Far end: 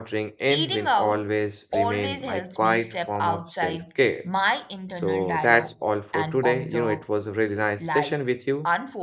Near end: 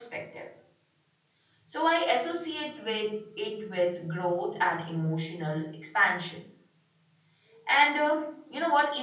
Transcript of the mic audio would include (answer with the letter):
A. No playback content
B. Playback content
A